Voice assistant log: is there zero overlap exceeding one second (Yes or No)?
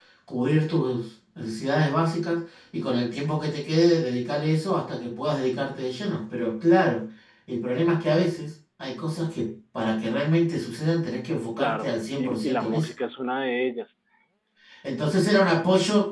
No